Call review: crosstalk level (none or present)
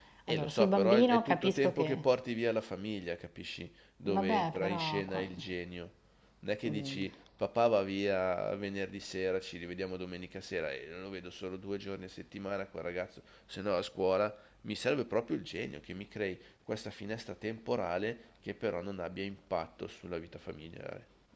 present